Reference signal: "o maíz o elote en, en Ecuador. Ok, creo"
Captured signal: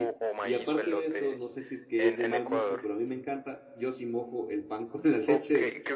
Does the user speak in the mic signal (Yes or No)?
Yes